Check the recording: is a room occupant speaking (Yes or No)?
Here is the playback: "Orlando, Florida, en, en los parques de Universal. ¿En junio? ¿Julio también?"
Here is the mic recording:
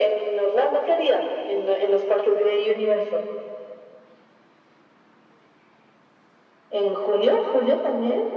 No